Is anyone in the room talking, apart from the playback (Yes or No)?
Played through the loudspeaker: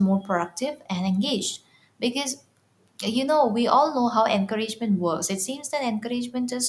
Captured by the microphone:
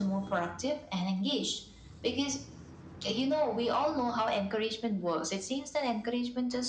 No